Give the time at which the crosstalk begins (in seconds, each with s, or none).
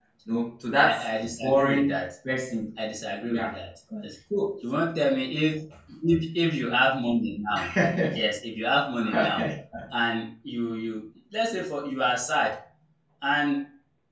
0.8 s